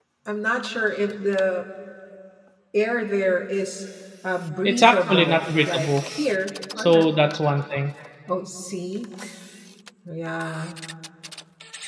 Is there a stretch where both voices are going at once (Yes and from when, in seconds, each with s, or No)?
Yes, from 4.7 s